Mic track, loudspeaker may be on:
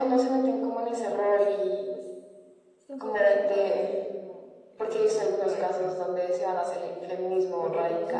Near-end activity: present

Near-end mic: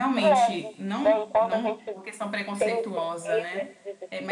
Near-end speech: present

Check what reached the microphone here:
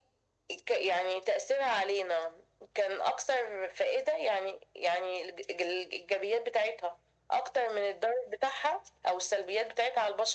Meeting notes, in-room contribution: none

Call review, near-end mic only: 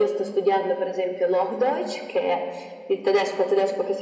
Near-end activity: none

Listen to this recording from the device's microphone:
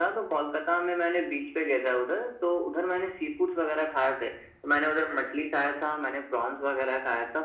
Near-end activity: none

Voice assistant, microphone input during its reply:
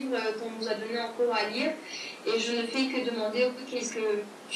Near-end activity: none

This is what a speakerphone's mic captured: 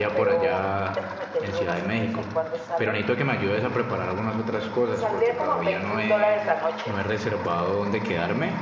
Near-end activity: present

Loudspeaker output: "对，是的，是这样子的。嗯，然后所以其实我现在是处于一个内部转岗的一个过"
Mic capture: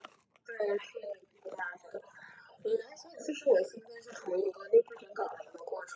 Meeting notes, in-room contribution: none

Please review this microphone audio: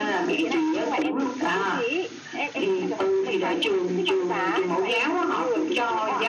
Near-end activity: none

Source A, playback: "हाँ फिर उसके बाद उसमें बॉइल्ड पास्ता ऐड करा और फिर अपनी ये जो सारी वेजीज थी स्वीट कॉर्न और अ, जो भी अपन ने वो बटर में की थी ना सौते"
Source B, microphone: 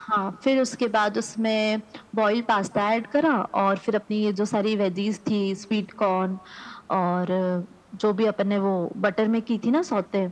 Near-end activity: none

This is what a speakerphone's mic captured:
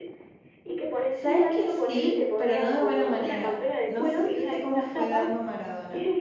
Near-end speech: present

